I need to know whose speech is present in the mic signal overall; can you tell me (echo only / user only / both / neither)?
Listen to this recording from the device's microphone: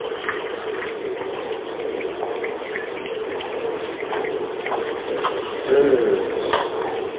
user only